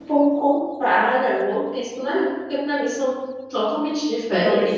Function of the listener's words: taking over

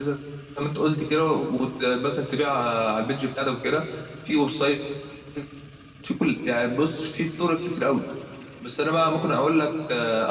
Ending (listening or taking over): listening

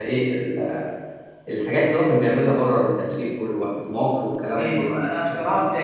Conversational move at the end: taking over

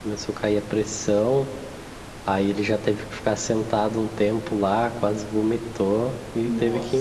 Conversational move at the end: listening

